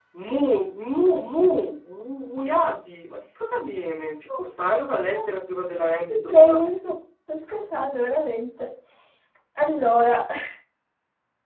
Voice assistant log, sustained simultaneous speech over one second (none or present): none